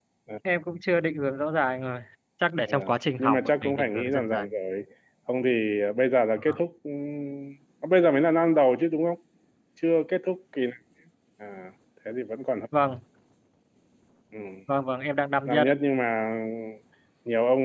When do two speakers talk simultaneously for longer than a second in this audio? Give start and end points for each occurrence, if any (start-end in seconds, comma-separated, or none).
3.2-4.5